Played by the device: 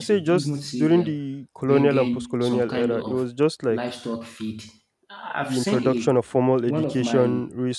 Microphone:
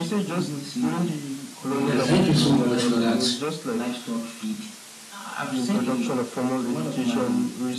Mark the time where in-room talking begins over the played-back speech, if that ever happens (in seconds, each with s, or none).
1.8 s